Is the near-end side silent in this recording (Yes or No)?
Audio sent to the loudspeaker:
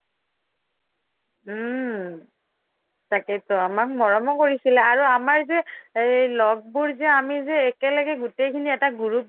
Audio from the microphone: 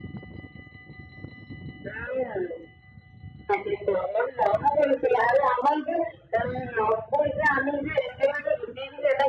Yes